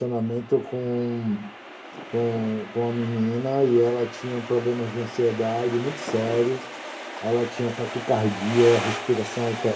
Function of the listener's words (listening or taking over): listening